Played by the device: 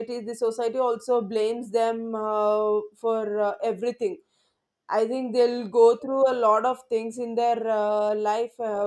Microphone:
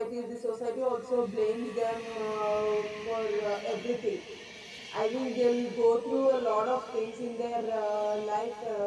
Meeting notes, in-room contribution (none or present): none